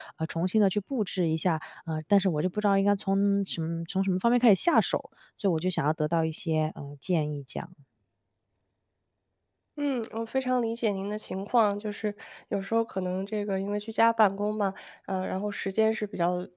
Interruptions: none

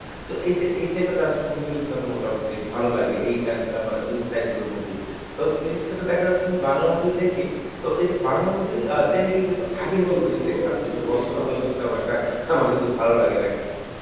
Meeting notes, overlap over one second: present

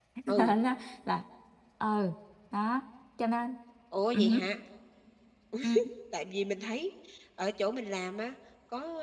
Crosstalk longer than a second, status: none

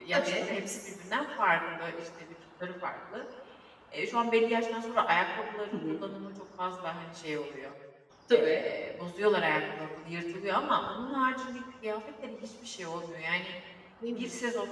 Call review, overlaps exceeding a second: none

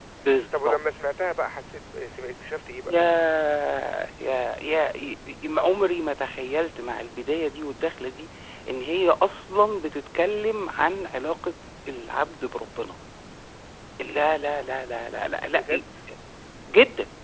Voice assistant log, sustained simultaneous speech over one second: none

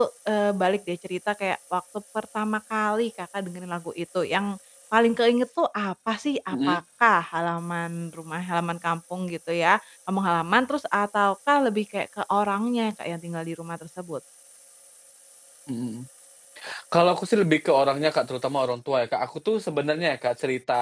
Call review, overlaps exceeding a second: none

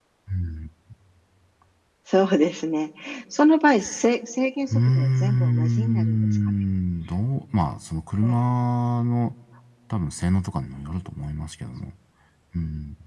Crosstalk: present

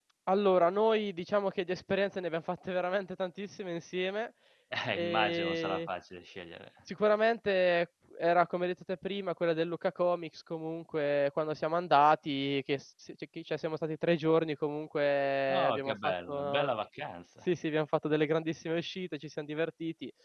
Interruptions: present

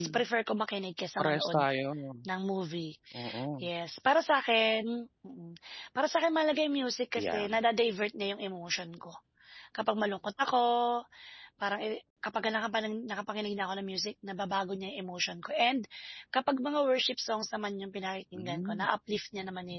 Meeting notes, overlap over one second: none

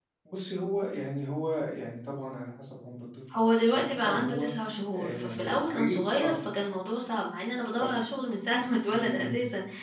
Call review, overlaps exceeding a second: present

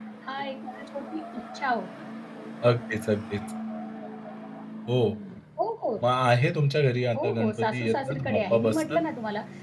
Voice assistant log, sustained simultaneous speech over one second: present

